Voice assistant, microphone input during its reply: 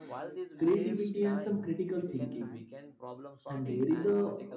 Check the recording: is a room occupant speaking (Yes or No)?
Yes